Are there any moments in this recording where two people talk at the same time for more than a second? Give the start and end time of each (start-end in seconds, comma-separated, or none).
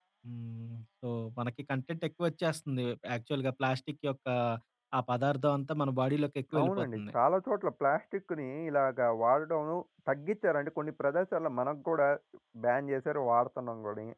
none